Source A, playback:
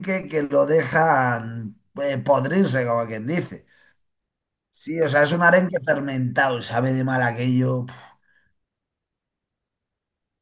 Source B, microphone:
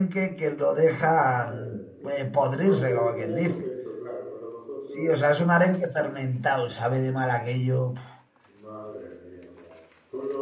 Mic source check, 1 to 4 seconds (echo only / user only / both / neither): both